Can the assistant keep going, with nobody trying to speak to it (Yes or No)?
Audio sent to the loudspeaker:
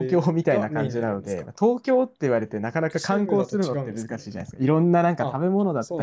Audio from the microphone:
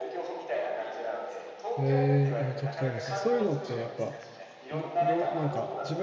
No